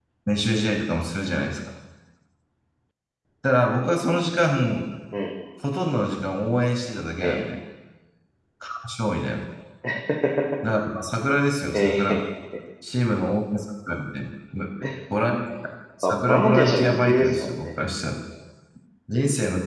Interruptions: present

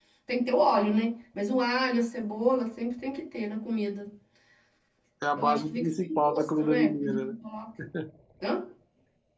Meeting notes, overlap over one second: present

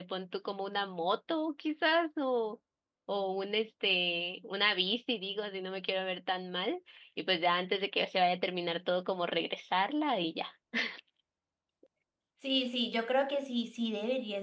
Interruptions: none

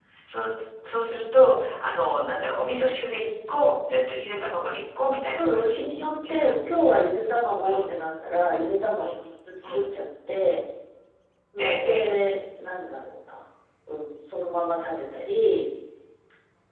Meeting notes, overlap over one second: none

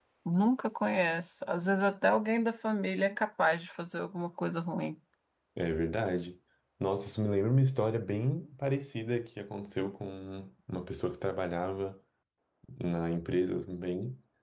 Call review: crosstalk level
none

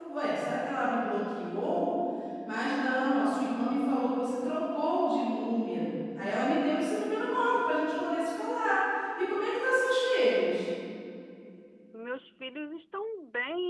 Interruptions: none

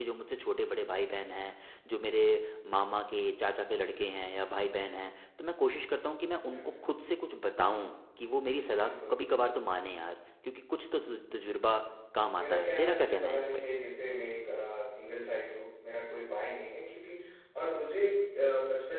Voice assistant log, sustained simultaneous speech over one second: present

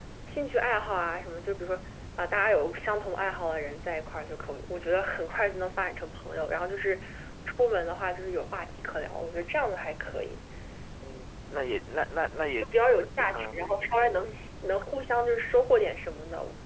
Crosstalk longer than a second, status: none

